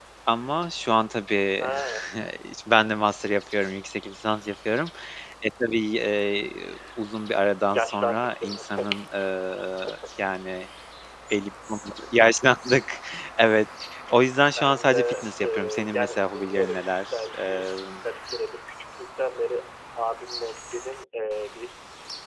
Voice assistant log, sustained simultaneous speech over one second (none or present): present